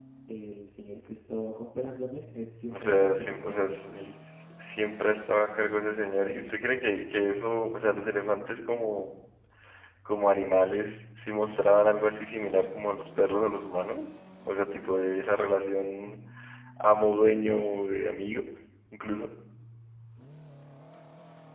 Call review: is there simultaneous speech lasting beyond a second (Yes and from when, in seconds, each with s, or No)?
Yes, from 2.7 s